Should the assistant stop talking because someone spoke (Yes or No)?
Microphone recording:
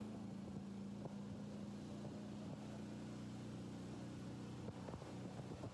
No